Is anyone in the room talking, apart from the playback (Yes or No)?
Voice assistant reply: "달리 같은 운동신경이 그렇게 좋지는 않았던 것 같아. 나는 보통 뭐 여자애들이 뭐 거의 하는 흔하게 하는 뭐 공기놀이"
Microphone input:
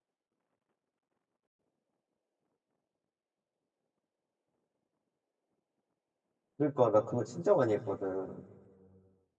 Yes